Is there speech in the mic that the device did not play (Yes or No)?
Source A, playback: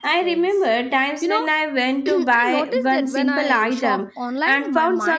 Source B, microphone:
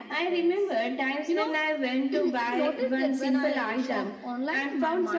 No